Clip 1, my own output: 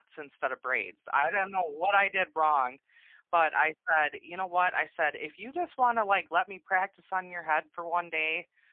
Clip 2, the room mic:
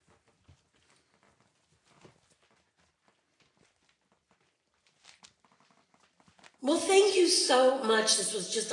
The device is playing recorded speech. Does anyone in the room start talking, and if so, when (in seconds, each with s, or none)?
6.6 s